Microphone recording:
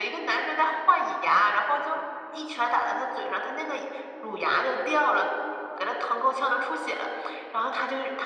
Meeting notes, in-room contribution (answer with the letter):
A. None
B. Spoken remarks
A